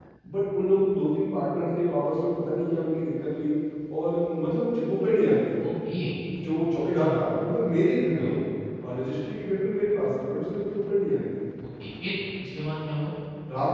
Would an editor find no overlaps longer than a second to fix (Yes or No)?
Yes